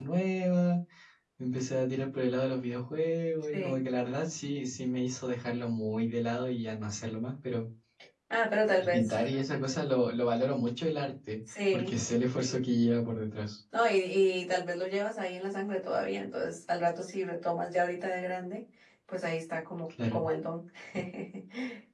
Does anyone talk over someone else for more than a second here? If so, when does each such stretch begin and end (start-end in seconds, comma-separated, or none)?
none